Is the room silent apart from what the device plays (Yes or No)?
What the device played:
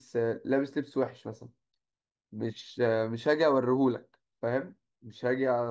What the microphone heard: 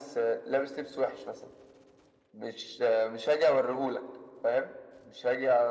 Yes